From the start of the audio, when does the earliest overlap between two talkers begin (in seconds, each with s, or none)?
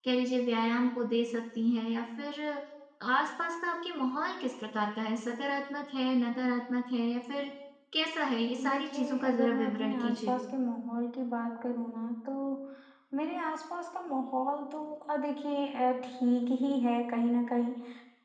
8.7 s